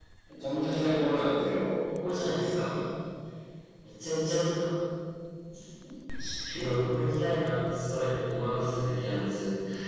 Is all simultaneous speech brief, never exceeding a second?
Yes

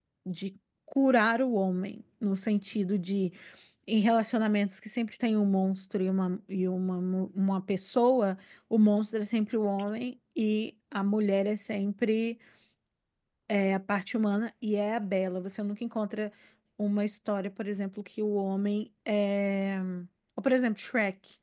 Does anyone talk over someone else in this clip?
No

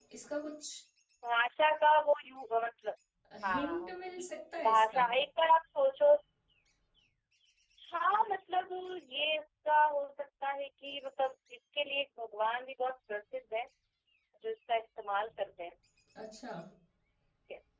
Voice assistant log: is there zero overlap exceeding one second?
Yes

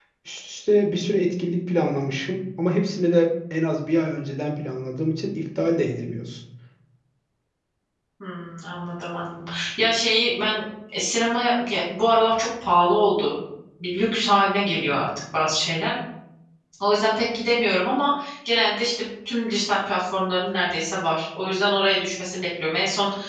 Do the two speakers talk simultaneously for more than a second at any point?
No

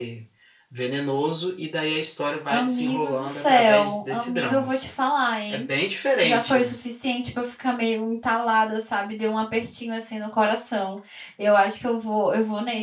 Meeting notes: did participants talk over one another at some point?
Yes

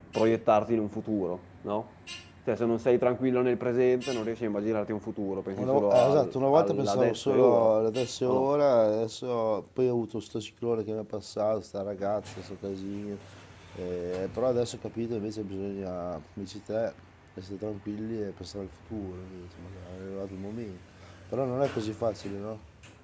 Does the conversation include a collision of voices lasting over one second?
Yes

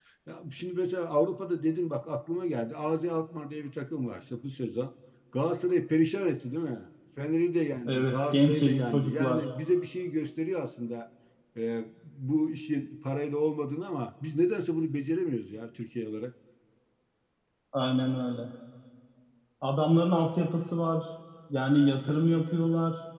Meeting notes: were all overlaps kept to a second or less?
No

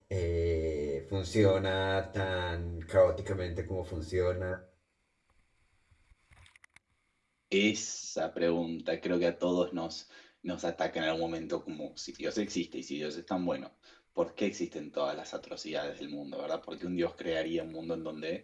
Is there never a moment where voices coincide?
Yes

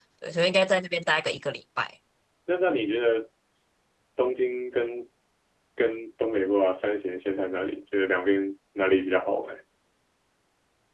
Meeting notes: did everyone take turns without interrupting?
Yes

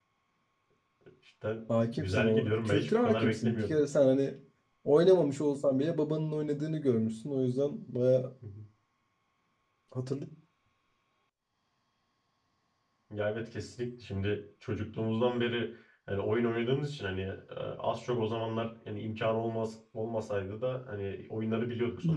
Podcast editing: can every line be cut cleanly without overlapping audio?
No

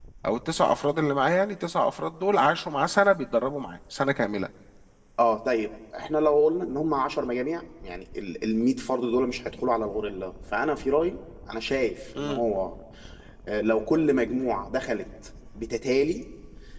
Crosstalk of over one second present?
No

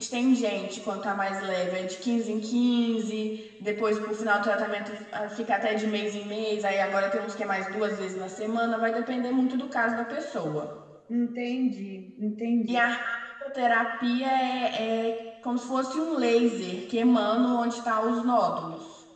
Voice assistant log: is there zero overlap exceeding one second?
Yes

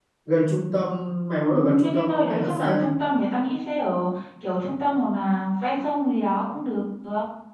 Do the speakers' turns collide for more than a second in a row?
Yes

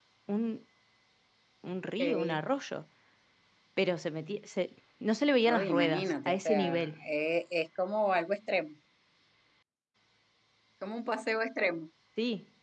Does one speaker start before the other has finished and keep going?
Yes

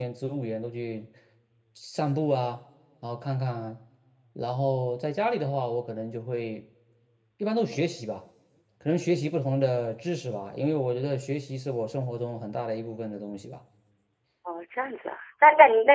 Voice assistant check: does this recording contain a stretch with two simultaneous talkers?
No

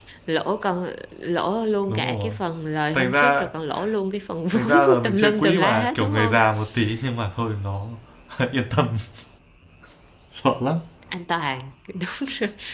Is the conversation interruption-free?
No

